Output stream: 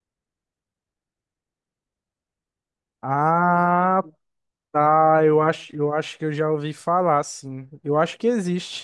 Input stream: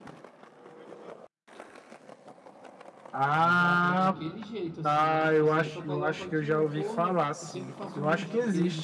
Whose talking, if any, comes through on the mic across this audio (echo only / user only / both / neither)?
both